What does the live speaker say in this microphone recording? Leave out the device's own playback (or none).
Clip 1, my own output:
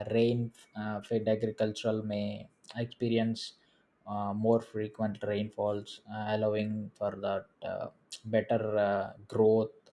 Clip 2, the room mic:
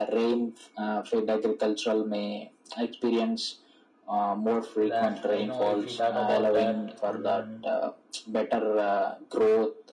to that. Uh, you know, if we talk about that, um,